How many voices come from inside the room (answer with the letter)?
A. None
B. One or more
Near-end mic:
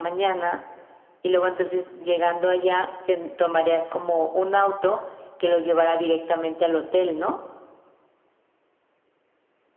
A